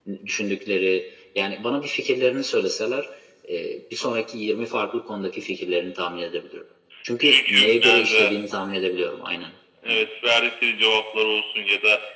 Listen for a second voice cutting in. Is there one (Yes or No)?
Yes